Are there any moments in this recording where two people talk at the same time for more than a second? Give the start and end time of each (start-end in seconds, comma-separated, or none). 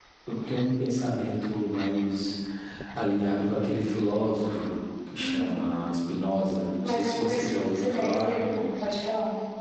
6.8-8.3